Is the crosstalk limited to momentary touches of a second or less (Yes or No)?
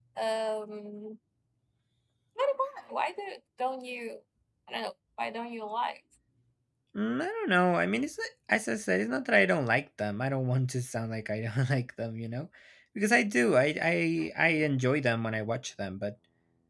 Yes